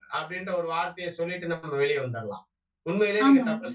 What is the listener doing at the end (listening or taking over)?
listening